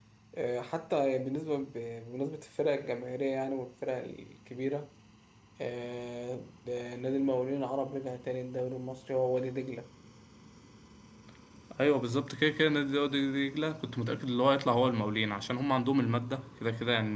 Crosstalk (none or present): none